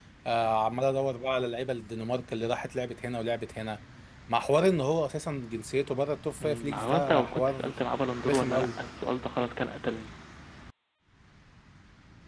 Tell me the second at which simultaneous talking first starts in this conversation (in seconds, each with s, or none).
6.4 s